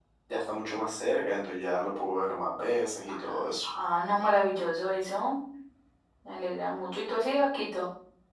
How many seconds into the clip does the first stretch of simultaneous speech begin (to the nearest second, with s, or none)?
none